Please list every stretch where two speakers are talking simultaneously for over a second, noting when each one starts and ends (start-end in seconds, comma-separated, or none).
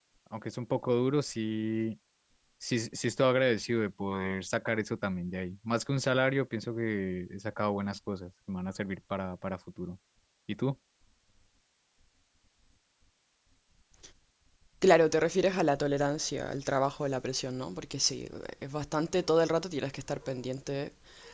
none